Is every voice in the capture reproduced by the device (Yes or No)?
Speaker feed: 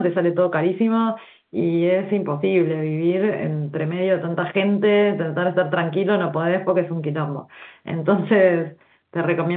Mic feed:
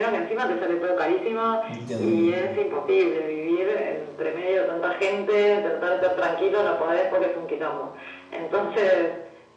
No